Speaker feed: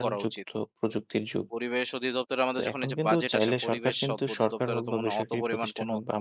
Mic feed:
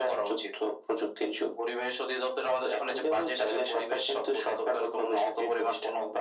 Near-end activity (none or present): none